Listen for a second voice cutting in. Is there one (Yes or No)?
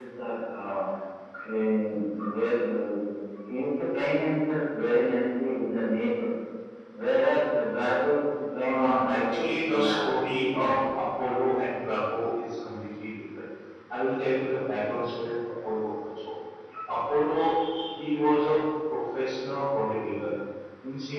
Yes